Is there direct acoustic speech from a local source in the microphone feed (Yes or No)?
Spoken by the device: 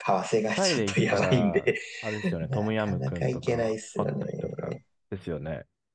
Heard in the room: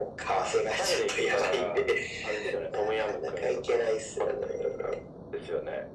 No